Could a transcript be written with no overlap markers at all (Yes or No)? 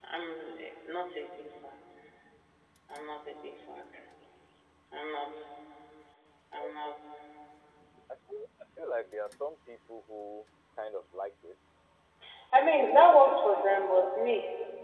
No